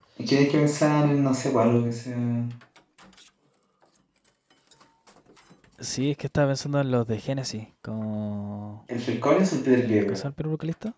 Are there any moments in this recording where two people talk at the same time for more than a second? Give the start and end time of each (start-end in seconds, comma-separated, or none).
none